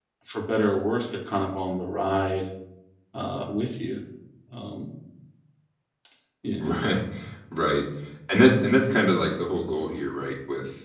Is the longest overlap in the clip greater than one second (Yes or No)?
No